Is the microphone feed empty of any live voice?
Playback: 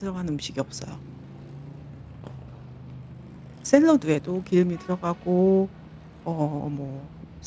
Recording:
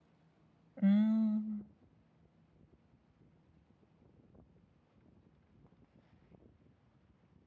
No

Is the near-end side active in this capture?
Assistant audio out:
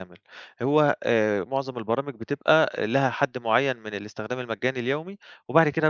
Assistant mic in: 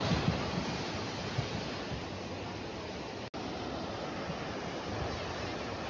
No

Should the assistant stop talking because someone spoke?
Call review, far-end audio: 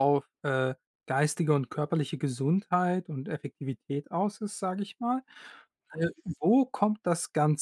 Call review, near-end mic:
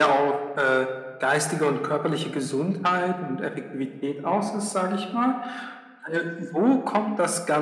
No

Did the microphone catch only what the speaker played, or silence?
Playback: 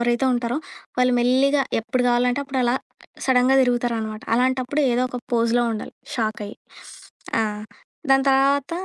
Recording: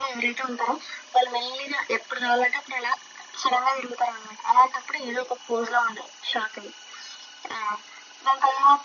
Yes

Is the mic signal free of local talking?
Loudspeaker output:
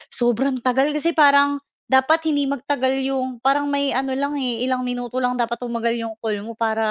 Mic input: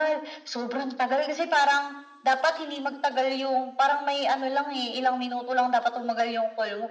Yes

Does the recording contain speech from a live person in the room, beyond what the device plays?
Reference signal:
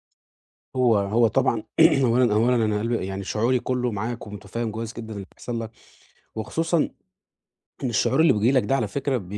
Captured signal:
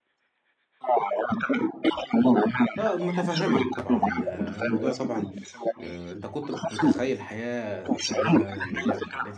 Yes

